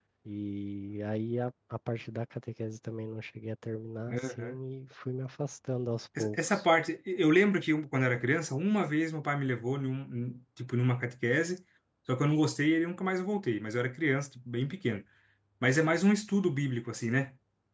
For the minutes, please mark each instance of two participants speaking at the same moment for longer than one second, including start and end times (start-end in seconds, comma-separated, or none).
none